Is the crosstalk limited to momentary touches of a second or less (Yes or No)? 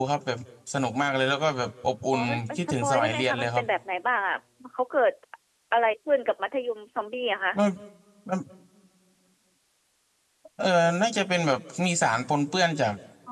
No